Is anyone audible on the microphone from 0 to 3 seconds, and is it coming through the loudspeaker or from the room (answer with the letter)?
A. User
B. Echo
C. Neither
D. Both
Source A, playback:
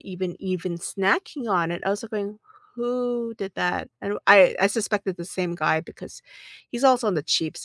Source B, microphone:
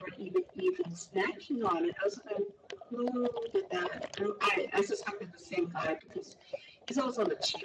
B